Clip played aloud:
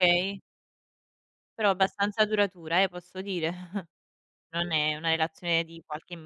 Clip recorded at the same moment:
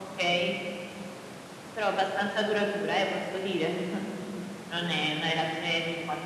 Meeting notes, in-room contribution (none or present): none